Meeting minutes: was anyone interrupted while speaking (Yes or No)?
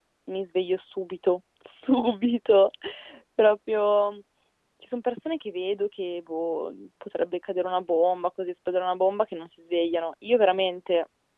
No